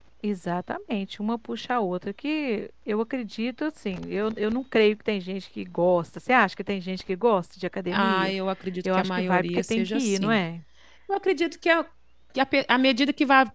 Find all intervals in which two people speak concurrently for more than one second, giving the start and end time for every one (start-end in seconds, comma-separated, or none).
8.8-10.4